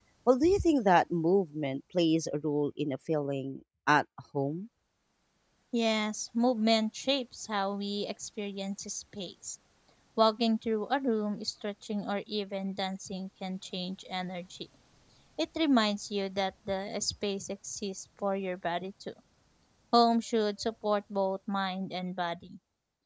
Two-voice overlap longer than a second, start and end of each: none

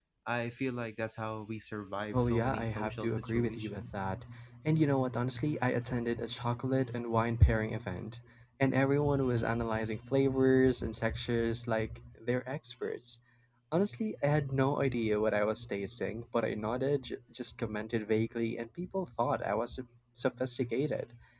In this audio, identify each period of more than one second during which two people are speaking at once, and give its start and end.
2.1-4.0

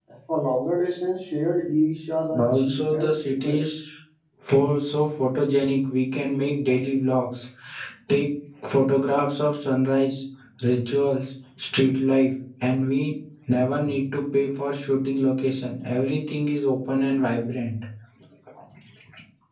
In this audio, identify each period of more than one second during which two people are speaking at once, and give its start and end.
2.4-3.6

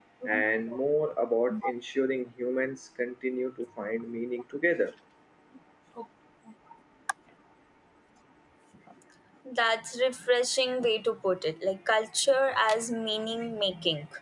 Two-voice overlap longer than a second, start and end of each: none

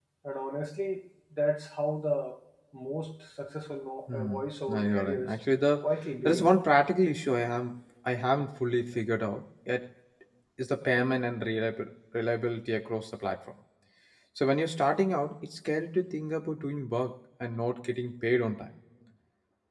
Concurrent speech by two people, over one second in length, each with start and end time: 4.1-5.4

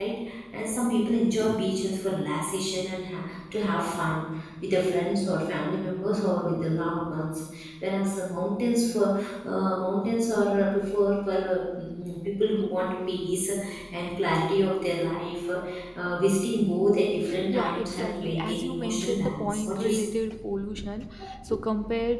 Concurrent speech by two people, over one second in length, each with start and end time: 17.5-20.1

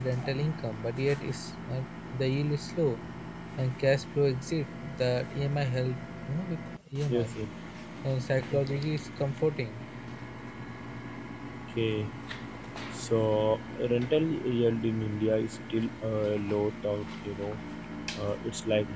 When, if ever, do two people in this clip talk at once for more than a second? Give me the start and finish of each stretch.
none

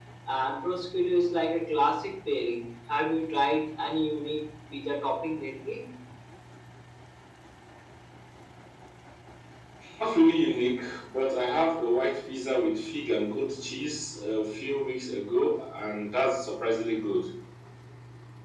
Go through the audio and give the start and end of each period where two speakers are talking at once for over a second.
none

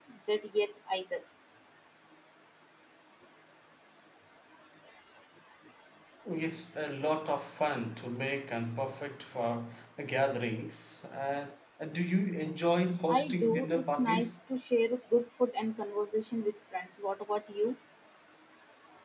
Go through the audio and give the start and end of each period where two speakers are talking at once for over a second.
13.1-14.4

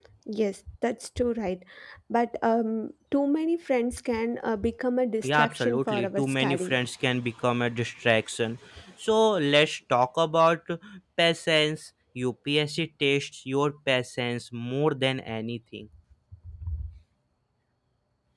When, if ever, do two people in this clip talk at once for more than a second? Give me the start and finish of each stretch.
5.3-6.7

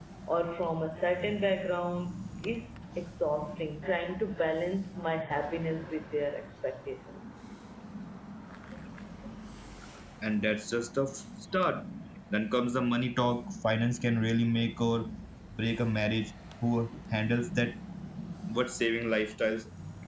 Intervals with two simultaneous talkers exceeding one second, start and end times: none

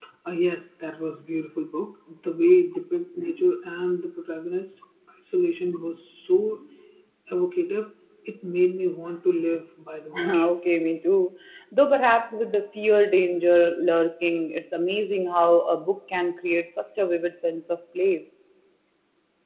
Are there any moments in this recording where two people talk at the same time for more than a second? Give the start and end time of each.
none

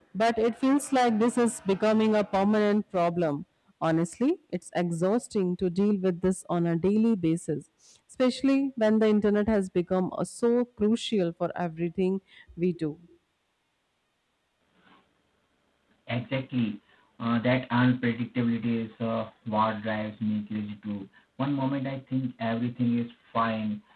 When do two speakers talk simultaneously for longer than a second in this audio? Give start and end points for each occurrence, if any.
none

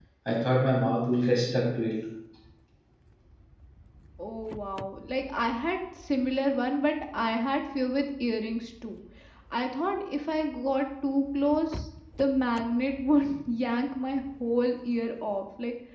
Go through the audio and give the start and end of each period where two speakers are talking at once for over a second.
none

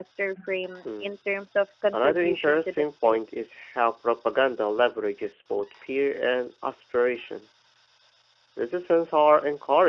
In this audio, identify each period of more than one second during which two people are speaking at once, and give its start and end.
1.9-3.2

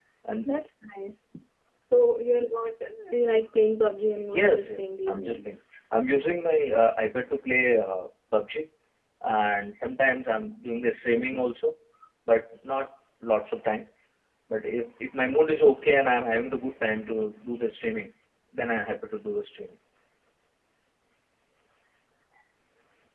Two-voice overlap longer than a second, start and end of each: 4.4-5.6

